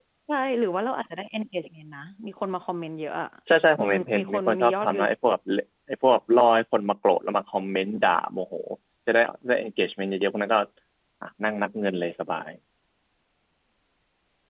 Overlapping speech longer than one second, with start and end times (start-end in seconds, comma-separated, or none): 3.8-5.0